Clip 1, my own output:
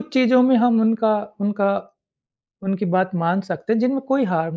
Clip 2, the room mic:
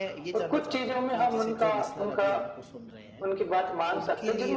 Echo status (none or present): present